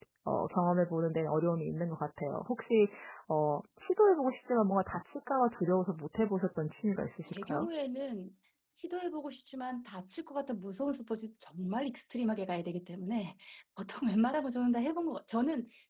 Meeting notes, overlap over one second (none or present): none